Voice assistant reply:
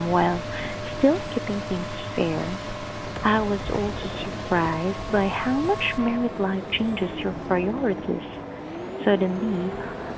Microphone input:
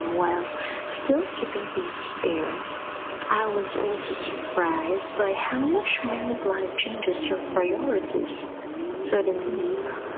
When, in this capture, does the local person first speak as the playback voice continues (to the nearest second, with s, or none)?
none